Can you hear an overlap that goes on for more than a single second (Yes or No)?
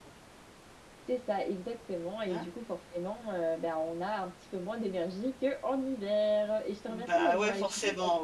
Yes